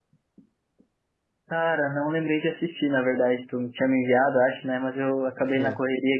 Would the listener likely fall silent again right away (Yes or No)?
Yes